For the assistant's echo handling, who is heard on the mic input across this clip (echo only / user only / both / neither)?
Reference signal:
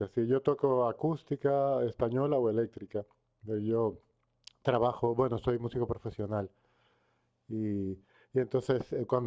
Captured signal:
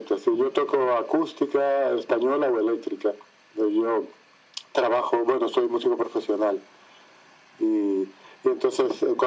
echo only